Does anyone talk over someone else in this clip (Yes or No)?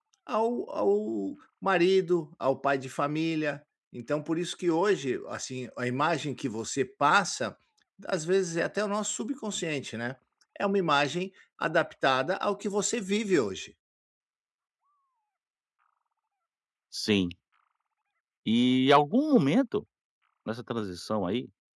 No